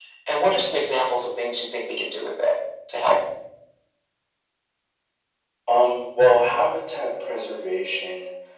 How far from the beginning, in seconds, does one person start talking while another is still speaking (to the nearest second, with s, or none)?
none